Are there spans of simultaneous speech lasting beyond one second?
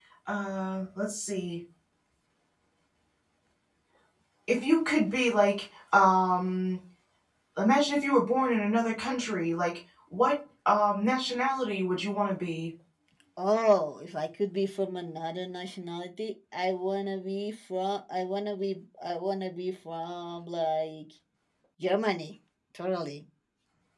No

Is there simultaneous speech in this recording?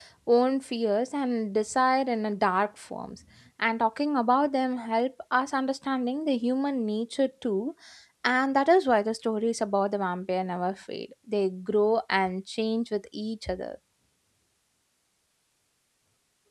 No

